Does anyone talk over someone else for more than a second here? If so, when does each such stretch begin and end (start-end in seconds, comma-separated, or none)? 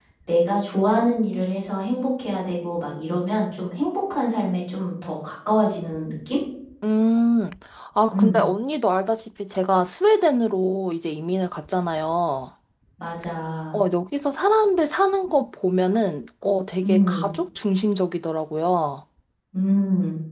none